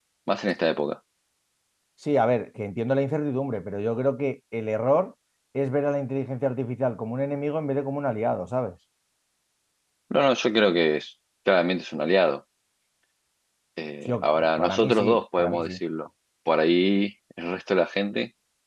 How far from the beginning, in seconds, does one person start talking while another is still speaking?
14 s

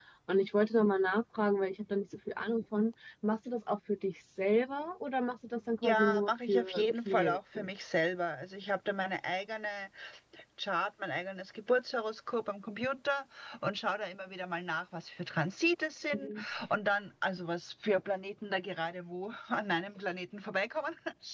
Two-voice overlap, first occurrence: 6 s

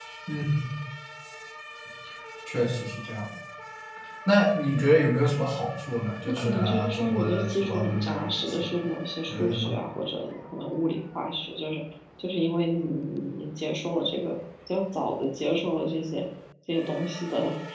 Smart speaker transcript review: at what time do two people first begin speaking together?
6 s

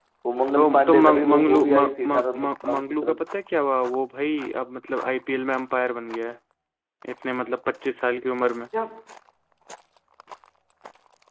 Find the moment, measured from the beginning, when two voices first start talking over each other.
1 s

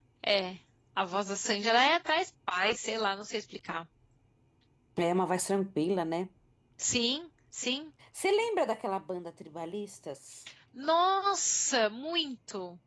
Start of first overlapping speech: none

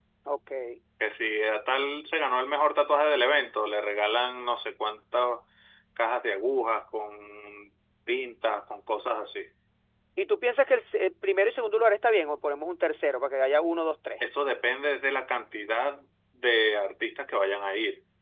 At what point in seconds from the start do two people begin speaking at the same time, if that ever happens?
none

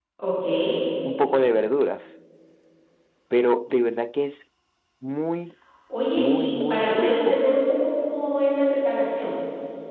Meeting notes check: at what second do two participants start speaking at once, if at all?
6 s

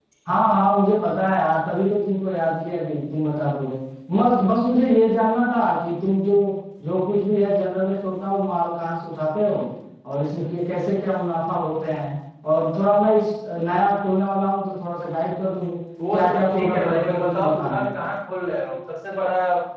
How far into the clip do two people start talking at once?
16 s

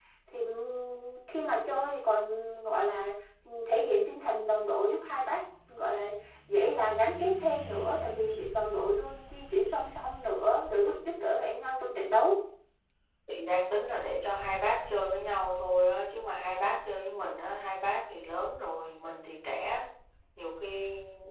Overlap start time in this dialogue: none

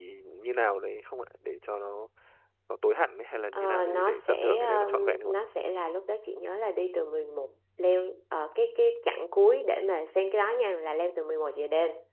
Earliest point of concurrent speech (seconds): 4 s

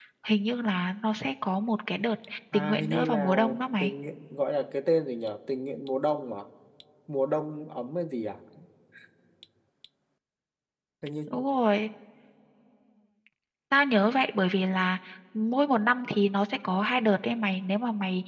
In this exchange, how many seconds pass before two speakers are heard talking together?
3 s

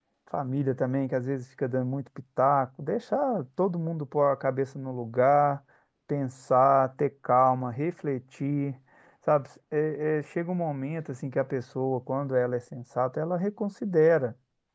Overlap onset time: none

